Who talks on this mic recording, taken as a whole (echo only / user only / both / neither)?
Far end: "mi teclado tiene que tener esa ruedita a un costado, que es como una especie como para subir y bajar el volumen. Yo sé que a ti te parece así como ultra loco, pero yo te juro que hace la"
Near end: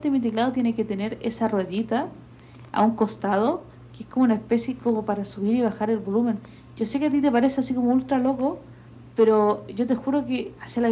echo only